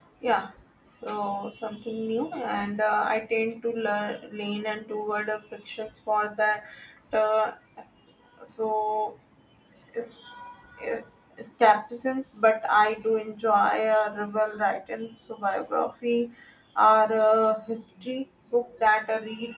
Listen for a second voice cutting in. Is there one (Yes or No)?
No